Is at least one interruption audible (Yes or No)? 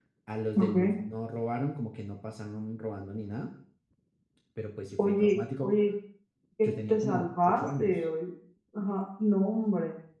Yes